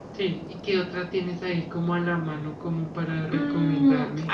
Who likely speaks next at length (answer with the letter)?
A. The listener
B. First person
A